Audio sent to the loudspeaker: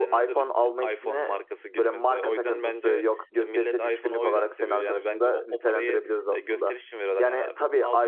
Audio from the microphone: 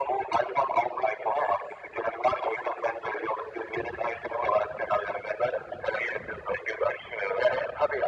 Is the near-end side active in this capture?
No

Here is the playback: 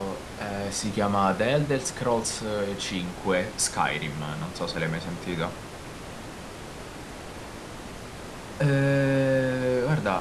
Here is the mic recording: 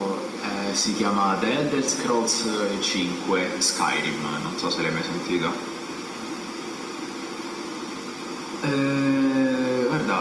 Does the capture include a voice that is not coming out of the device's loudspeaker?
No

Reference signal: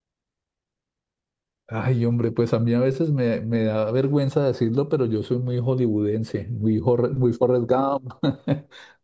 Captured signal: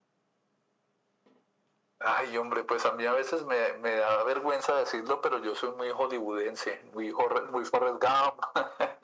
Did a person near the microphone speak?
No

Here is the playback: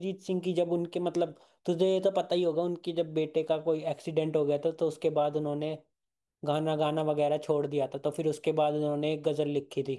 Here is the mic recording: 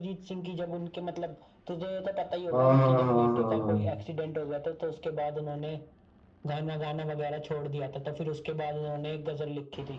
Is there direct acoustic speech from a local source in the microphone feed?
Yes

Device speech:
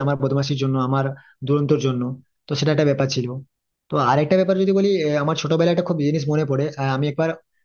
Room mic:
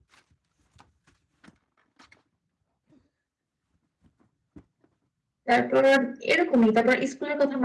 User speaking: Yes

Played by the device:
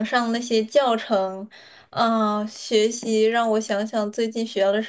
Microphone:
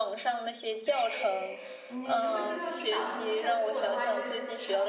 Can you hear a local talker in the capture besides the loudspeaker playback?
Yes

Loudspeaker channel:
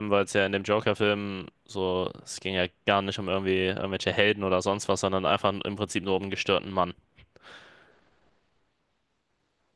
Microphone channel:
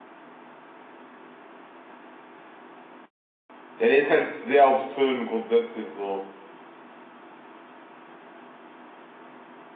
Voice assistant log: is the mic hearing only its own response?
No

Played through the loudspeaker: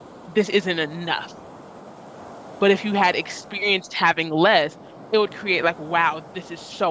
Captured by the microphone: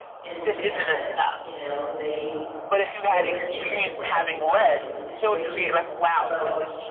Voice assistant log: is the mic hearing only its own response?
No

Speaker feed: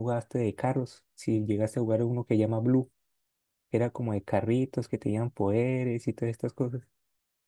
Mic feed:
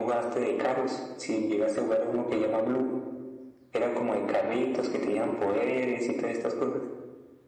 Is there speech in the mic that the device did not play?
No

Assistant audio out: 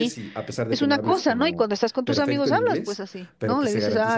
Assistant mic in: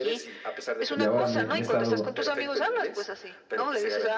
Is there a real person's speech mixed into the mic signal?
Yes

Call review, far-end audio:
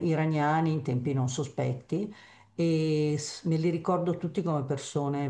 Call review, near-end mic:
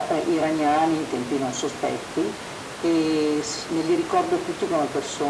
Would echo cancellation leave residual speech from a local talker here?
No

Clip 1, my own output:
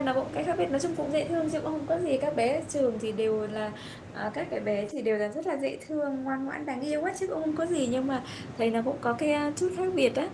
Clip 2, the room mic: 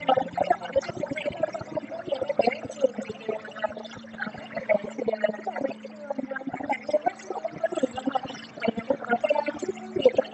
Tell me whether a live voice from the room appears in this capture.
No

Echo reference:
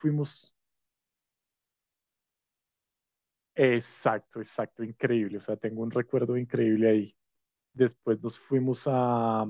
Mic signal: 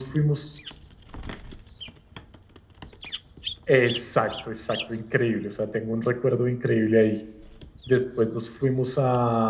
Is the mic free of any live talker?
Yes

